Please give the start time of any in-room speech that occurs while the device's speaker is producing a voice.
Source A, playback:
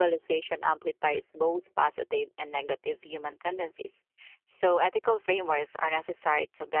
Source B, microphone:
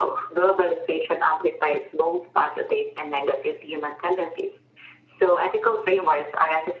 none

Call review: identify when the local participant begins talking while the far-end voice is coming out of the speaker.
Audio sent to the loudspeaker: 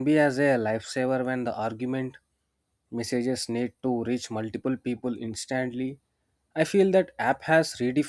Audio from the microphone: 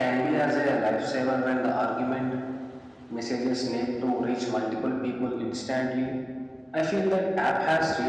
none

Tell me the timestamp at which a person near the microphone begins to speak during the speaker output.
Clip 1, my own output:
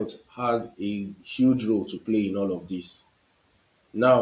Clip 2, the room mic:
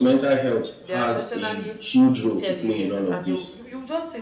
0.8 s

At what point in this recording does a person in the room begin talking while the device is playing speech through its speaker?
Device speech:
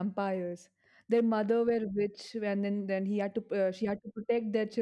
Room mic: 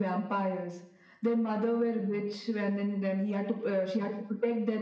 none

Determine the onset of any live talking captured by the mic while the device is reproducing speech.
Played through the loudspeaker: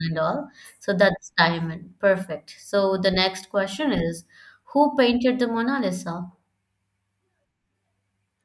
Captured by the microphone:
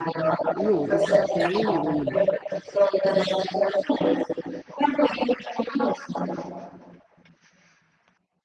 0.5 s

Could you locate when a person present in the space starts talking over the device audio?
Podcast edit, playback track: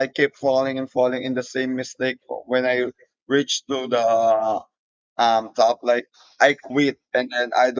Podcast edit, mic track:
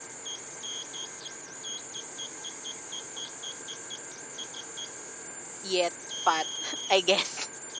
5.6 s

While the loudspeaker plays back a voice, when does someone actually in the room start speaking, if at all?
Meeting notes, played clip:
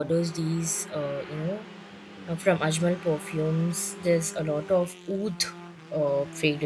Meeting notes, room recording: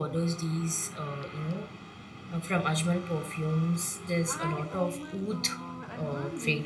4.2 s

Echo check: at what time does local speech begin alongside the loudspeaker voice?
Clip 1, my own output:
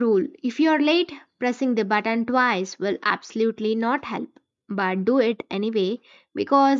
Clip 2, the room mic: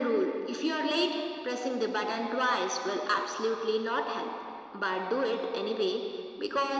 none

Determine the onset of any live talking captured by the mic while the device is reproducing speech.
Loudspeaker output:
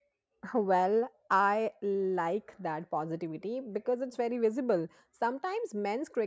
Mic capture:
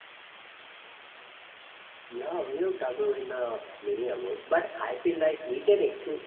2.1 s

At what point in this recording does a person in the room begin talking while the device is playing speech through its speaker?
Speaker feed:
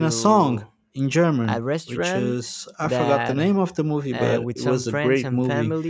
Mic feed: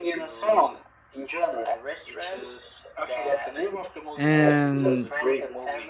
4.1 s

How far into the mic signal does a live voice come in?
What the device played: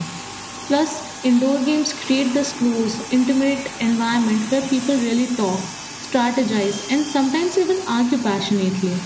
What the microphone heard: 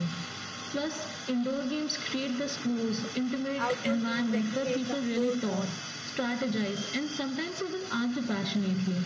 3.6 s

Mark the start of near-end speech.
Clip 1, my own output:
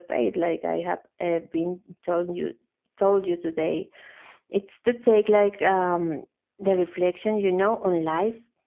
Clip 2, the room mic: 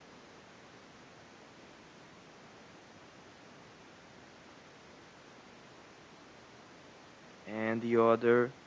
7.5 s

